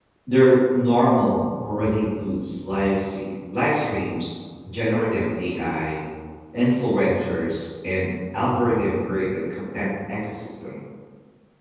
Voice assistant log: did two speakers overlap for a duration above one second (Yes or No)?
No